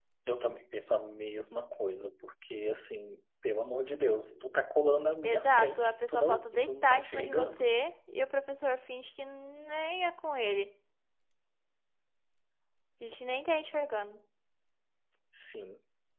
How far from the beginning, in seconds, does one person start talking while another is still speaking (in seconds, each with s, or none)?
5.2 s